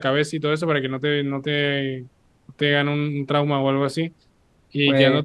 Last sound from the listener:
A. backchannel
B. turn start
A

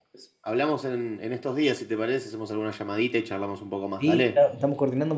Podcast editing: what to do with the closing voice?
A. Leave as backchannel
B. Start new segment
B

